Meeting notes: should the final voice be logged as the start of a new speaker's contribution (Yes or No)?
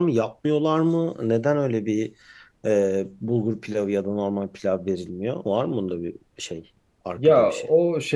Yes